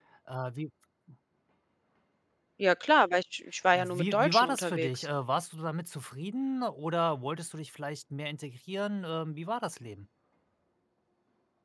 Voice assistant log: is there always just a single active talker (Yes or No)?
No